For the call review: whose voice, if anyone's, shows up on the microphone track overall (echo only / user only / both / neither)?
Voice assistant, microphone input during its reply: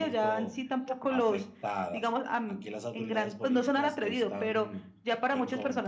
echo only